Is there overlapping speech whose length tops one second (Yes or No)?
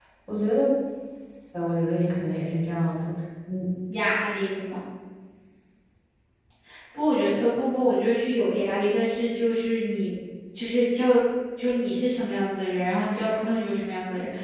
No